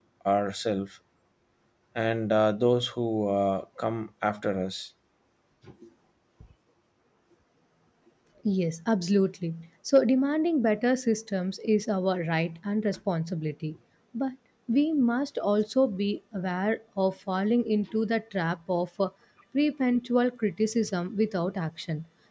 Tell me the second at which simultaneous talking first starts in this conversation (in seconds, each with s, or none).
none